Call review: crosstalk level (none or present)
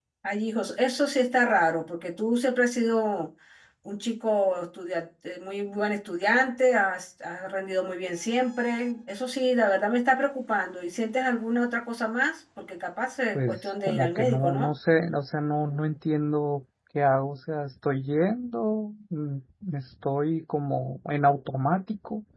present